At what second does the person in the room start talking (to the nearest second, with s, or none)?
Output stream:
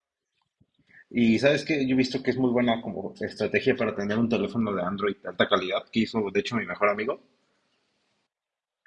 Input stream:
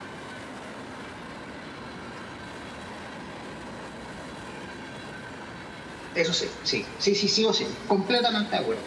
6 s